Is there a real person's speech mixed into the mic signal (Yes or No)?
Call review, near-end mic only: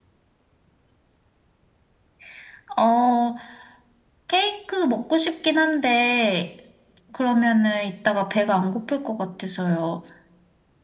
No